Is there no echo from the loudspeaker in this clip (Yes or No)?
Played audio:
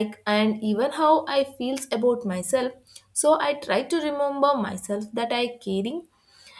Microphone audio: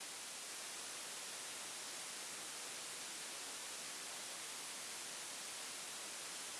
Yes